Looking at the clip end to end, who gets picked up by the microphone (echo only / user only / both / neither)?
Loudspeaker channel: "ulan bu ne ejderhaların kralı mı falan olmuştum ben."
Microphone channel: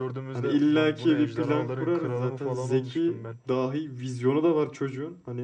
both